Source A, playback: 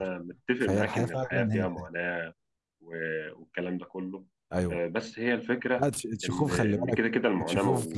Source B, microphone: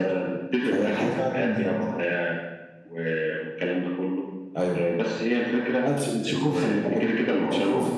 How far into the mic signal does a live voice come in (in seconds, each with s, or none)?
none